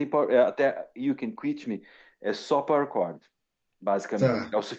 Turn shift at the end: No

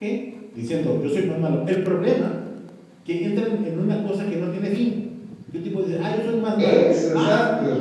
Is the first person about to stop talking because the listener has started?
No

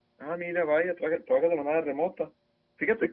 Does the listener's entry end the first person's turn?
No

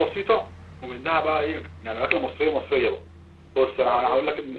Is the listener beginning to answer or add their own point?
No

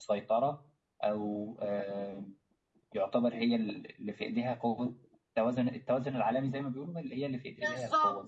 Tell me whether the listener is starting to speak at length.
Yes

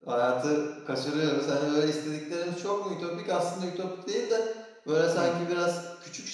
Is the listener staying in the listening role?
Yes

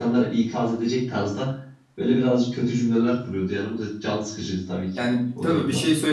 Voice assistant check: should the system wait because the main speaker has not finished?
No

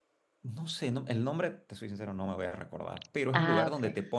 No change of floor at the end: Yes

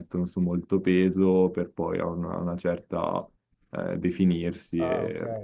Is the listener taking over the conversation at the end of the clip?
Yes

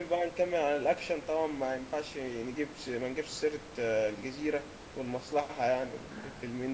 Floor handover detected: Yes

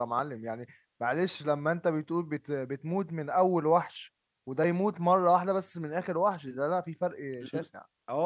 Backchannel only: No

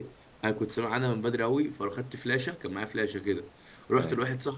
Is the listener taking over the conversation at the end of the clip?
No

